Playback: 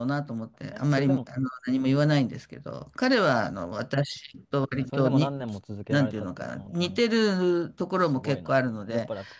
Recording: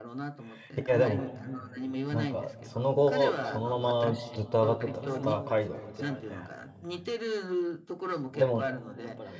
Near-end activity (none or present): present